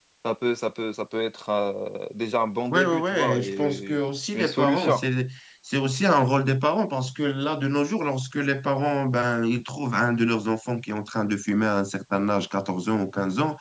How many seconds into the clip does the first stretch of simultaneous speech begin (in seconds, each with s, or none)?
2.7 s